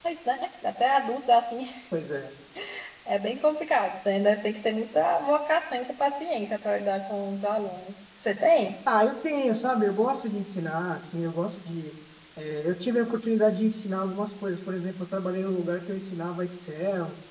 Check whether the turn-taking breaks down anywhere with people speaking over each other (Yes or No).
No